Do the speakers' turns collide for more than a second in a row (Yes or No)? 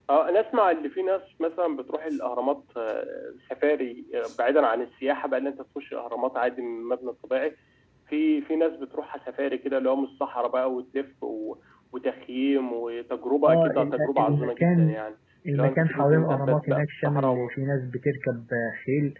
Yes